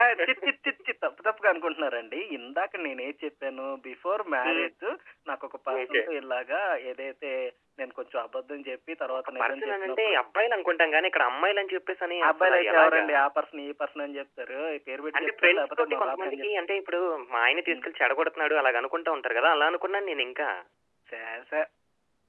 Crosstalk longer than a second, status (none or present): present